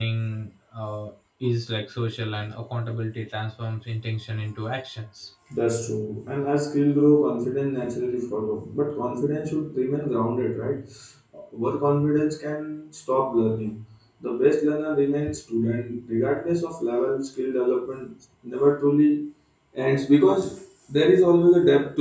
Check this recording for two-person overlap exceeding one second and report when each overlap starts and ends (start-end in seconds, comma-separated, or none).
none